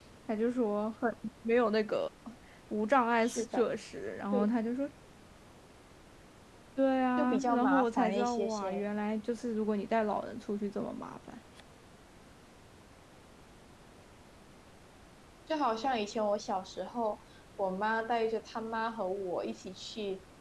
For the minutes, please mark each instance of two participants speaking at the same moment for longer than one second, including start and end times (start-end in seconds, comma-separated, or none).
7.2-8.8